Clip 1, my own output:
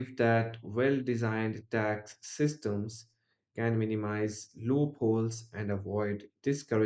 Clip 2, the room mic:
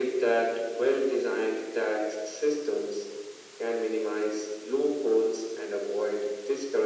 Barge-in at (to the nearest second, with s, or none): none